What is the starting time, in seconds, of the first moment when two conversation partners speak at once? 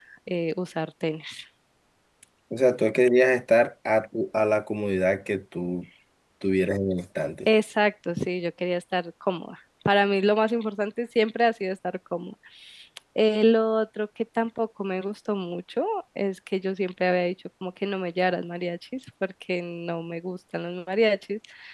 none

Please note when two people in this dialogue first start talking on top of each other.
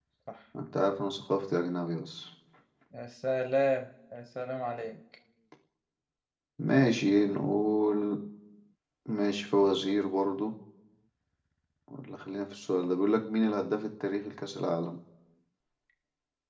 none

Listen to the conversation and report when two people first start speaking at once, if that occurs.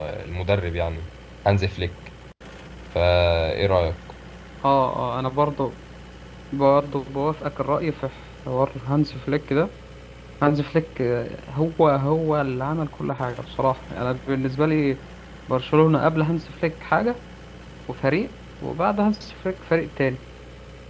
none

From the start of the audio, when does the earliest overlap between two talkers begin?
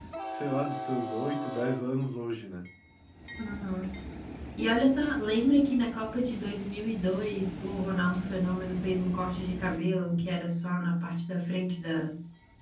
none

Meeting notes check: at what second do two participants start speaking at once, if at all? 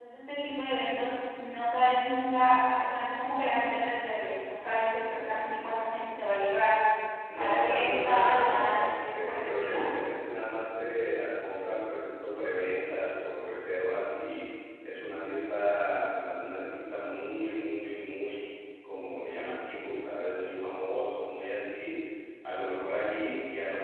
7.4 s

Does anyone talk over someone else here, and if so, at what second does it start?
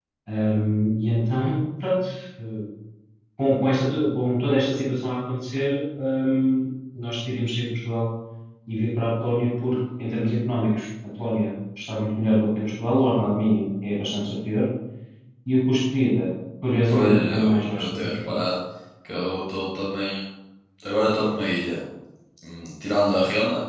16.7 s

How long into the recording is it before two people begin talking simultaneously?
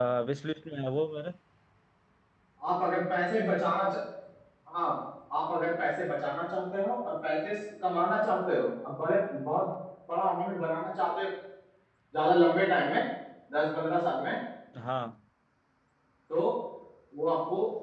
none

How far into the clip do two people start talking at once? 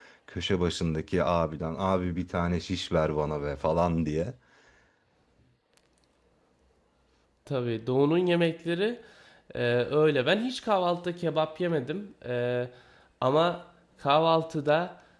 none

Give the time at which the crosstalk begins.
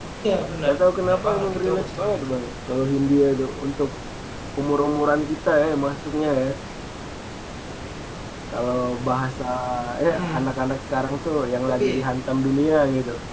0.7 s

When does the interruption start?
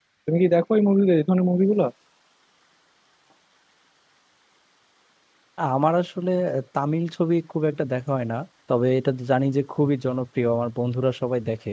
none

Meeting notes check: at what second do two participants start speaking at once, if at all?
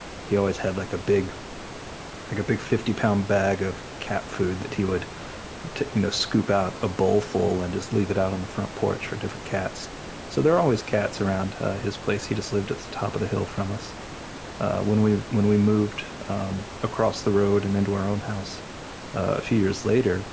none

